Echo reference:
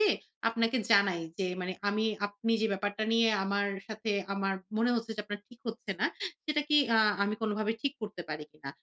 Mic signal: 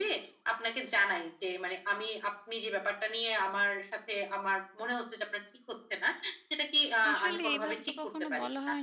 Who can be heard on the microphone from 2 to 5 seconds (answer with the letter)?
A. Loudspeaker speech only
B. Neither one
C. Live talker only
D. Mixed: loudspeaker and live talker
A